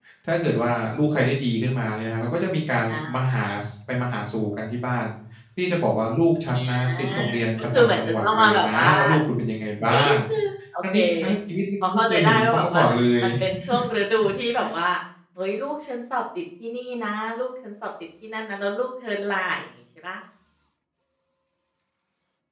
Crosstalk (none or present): present